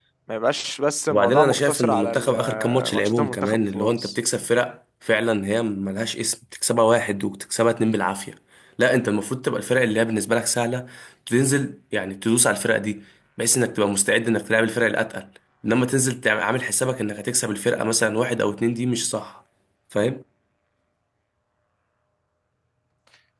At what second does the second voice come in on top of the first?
1 s

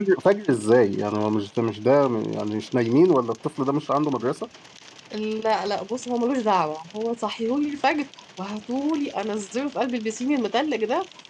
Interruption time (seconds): none

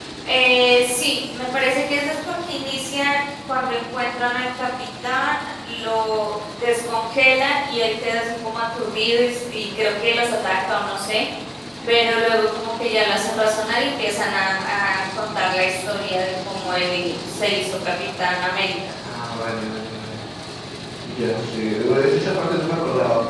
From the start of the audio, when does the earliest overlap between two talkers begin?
none

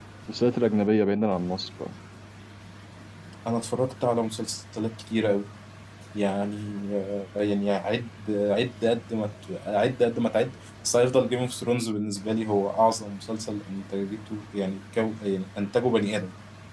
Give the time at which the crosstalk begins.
none

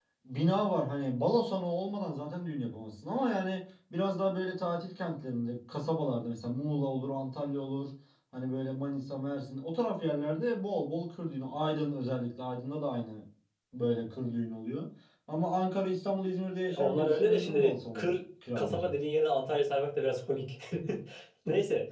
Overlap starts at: 17 s

